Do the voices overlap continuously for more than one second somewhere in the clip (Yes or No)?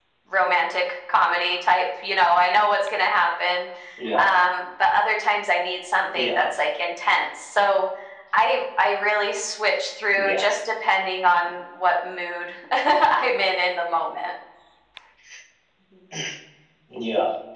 No